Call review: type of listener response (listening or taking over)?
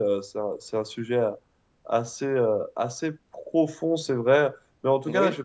listening